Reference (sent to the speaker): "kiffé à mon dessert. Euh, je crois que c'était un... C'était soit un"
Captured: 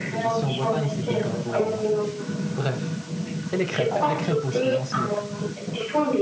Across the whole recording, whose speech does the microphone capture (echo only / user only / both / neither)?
both